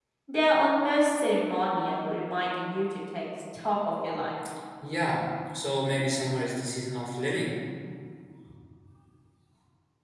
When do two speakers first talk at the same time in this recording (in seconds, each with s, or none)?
none